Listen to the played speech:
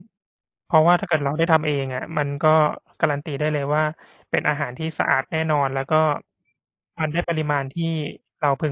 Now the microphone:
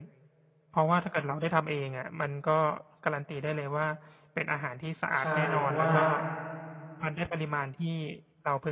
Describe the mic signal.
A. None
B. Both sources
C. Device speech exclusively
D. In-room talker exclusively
B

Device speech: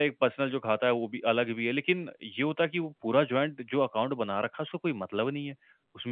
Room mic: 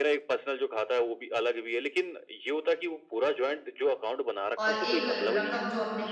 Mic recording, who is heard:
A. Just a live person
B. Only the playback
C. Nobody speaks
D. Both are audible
D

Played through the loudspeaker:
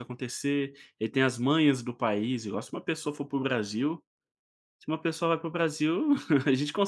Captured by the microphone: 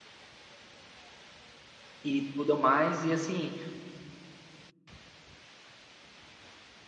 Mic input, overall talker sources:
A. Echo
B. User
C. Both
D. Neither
B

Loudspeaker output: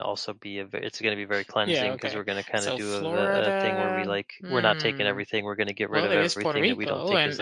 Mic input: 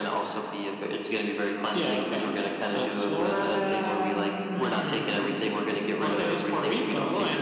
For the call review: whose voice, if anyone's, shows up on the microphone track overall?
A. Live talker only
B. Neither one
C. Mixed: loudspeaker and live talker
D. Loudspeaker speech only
D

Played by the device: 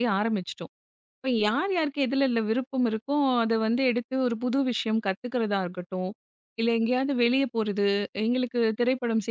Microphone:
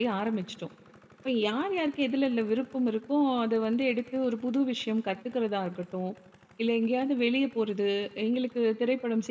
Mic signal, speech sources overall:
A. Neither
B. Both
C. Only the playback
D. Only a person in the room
C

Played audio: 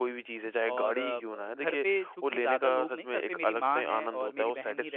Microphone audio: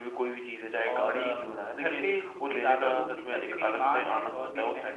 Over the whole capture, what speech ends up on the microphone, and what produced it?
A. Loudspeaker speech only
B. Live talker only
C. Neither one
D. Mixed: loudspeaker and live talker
A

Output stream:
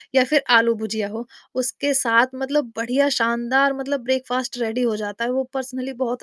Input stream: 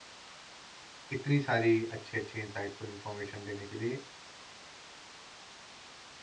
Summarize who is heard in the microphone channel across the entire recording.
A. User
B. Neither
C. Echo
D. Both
A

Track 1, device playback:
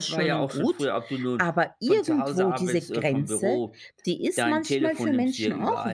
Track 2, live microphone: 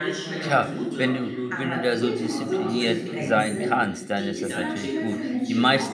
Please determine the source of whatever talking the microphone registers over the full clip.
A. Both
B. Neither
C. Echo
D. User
A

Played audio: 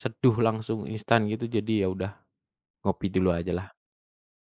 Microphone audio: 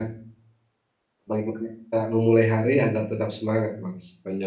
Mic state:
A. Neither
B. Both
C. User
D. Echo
C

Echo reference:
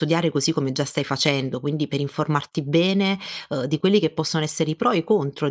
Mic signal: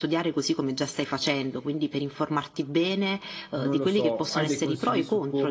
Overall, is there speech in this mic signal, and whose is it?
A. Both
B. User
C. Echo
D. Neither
A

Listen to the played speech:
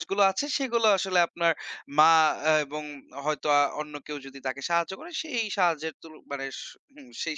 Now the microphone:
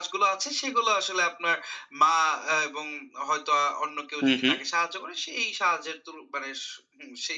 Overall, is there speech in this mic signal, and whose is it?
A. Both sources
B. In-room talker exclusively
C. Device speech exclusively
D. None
A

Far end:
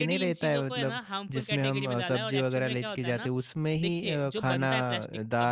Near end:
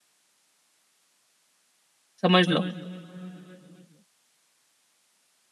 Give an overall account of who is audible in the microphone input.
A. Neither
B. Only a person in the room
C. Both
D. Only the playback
B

